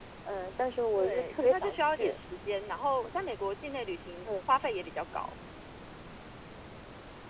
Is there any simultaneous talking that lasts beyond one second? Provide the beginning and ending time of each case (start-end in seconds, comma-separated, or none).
1.0-2.2